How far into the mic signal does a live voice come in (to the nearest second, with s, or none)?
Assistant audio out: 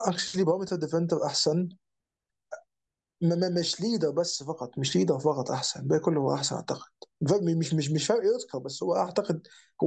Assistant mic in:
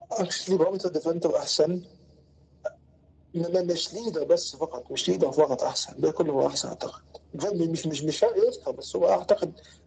none